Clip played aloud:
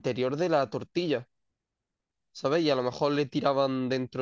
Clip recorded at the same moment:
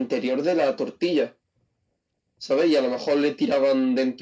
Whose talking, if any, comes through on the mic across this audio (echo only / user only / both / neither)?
echo only